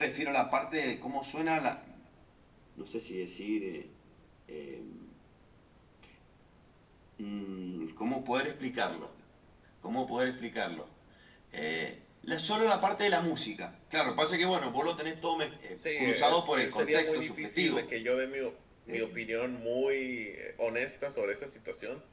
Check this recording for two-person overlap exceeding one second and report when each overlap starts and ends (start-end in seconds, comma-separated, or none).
16.0-17.9